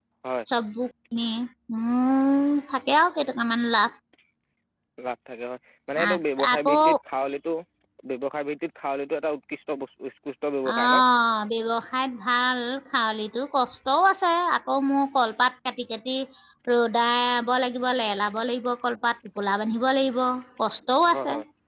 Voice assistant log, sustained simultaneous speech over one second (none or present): none